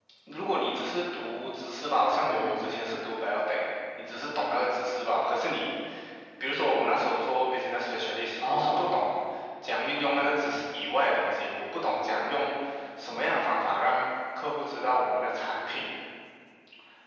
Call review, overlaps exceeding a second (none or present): none